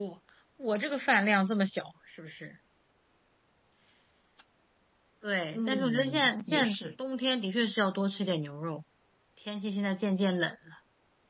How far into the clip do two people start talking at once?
5.5 s

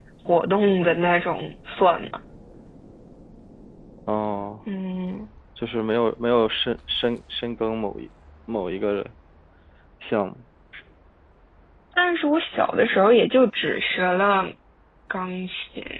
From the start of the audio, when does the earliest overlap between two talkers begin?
none

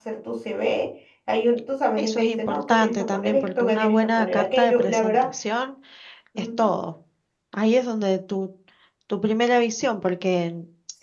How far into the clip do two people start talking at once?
2.0 s

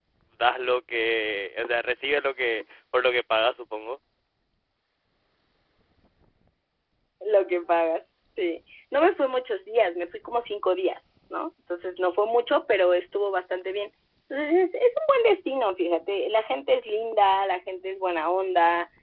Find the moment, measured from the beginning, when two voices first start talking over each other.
none

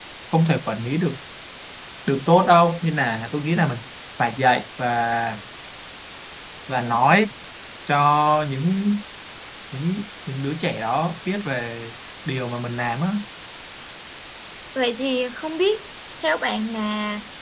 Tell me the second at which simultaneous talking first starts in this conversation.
none

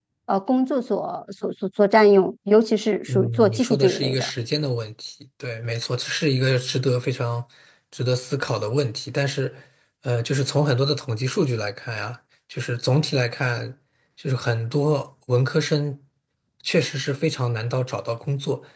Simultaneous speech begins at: 3.1 s

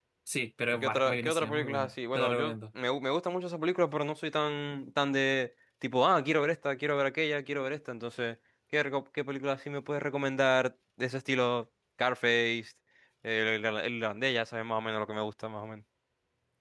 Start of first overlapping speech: 0.7 s

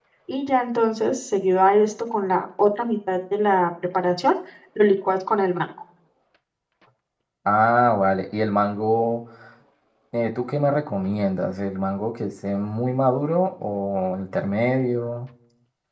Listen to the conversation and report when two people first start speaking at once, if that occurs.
none

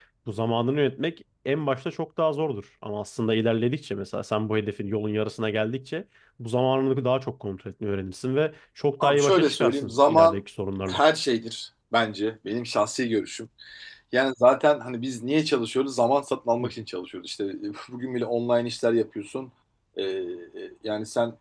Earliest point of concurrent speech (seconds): 9.0 s

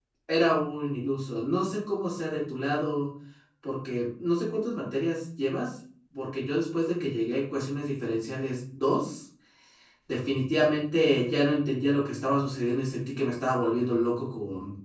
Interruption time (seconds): none

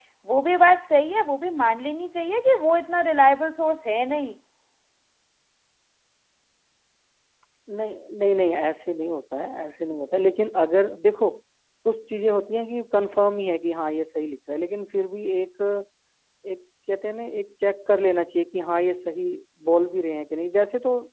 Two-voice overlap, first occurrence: none

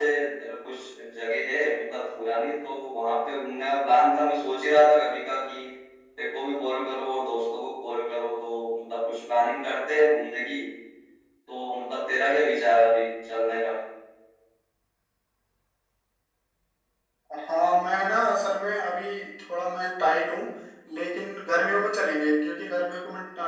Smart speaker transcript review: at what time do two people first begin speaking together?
none

